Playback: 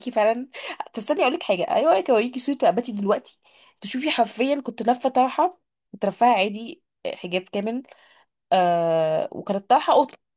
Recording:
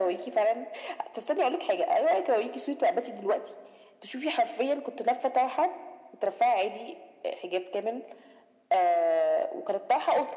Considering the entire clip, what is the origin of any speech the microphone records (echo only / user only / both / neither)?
echo only